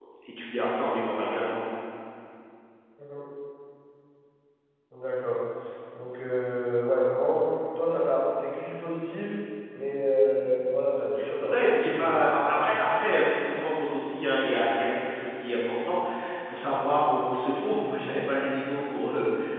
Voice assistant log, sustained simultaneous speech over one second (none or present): present